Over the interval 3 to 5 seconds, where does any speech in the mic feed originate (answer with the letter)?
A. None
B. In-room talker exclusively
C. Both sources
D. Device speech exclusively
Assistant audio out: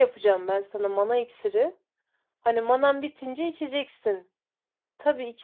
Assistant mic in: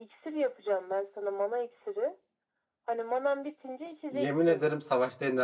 C